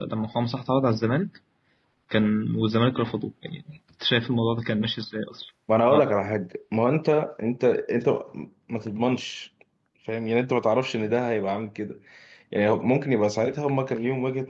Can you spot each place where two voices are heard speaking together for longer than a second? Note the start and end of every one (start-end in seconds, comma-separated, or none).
none